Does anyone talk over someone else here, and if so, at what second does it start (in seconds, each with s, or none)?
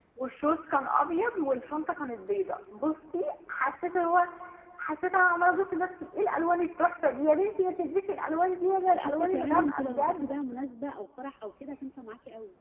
8.9 s